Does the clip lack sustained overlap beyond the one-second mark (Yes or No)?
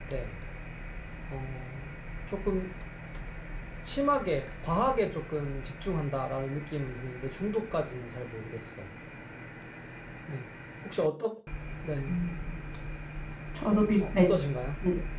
Yes